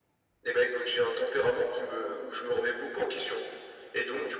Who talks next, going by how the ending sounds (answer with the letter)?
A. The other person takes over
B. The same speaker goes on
B